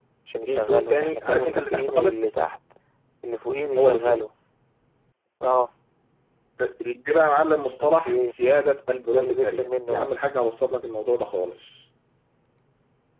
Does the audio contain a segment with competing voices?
Yes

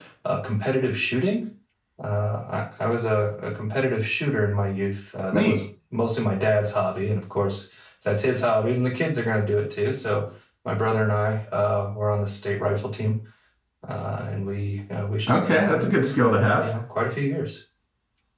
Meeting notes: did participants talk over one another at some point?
Yes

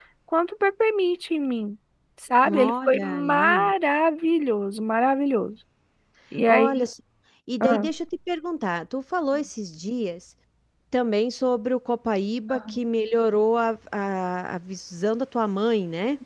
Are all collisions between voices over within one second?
No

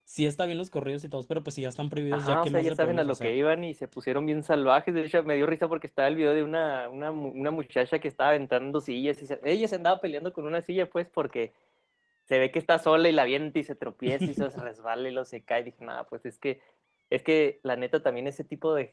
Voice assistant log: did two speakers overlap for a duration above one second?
Yes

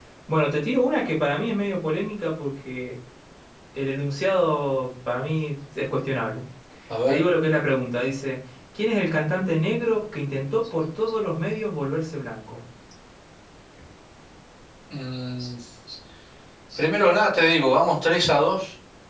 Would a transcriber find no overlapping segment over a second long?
Yes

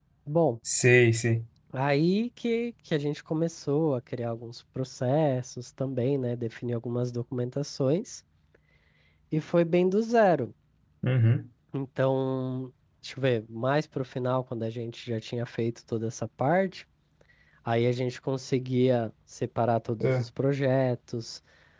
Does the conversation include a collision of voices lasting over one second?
No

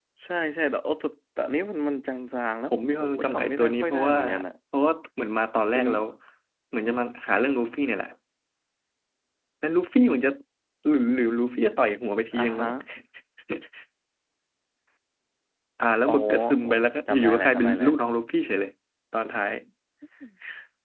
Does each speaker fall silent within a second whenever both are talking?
No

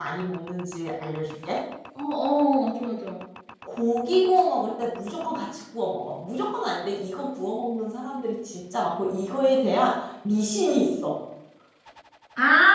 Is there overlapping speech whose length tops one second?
No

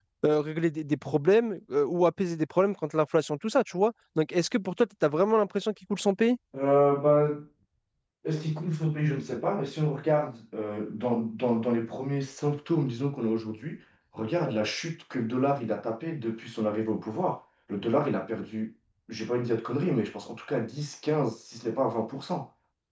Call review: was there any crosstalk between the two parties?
No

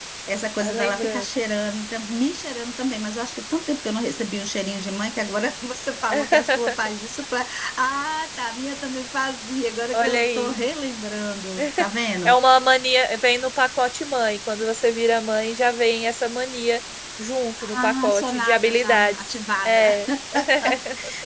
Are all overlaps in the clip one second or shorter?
No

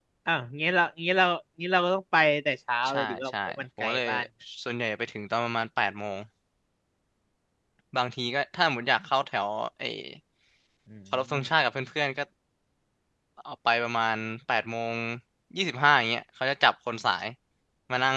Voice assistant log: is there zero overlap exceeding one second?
No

